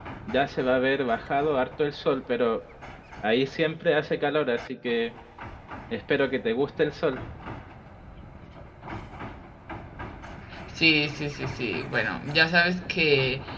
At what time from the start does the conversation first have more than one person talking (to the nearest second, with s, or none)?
none